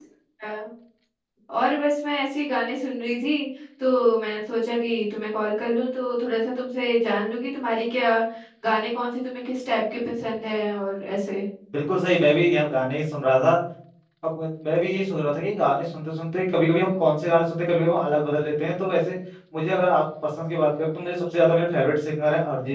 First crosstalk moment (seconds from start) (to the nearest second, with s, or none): none